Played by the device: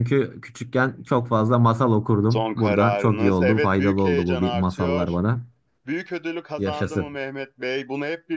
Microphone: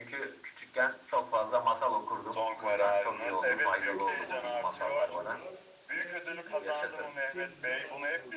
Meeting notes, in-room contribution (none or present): present